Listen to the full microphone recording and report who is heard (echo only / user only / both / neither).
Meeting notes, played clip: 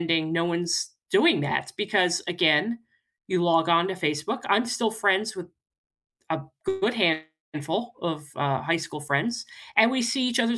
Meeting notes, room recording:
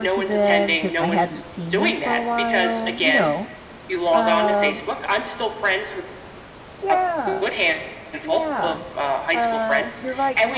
both